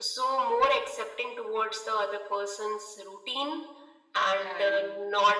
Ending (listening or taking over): listening